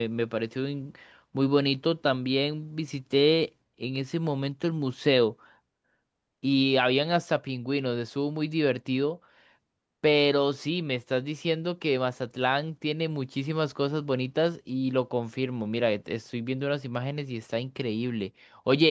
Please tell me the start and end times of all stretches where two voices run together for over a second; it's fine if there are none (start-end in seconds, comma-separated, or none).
none